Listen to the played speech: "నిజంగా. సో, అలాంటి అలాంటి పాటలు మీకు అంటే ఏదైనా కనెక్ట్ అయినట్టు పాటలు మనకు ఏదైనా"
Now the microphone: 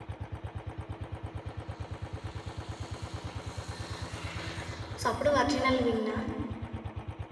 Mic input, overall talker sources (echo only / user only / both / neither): user only